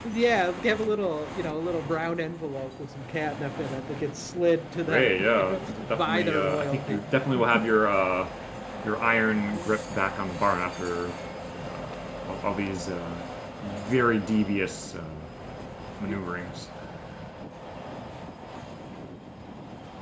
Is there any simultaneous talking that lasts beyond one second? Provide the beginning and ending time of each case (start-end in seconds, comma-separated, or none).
4.9-7.0